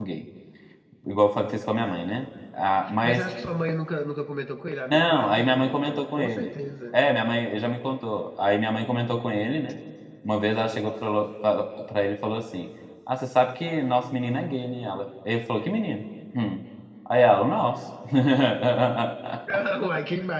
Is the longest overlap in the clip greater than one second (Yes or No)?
Yes